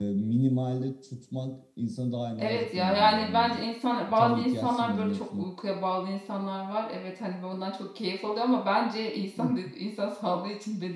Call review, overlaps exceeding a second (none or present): present